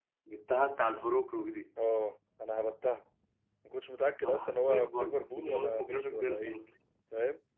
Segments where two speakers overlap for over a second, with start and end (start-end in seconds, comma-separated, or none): 4.2-6.6